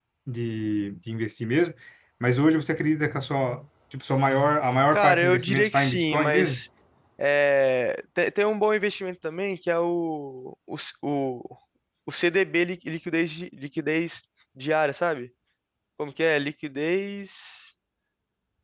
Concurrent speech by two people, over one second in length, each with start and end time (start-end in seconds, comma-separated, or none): 4.9-6.6